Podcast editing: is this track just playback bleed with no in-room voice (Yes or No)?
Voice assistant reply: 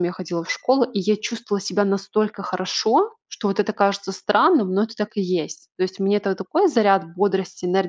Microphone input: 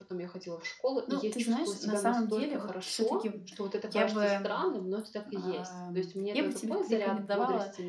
No